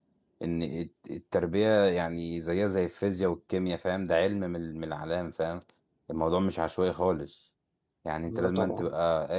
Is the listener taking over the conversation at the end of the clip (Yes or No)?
No